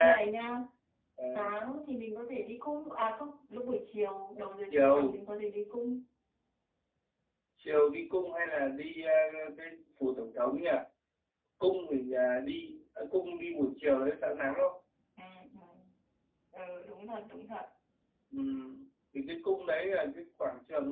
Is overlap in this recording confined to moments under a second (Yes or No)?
Yes